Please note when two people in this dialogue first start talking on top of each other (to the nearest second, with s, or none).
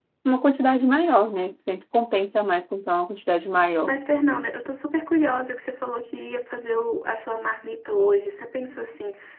none